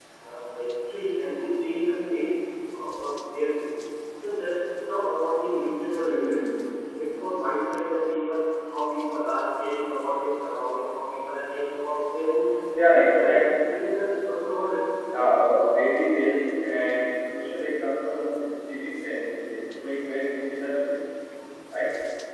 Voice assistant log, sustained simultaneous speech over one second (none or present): none